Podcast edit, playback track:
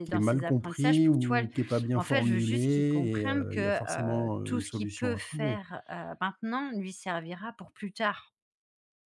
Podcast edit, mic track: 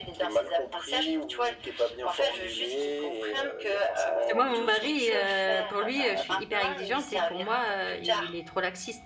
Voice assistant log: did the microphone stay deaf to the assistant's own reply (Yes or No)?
No